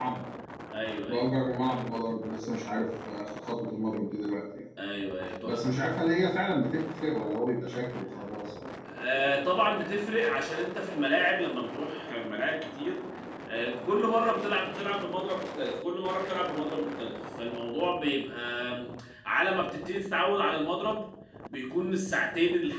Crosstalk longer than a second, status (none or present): none